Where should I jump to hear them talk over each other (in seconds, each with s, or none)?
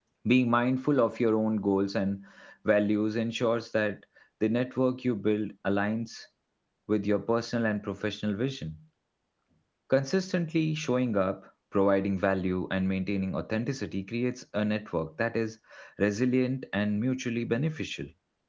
none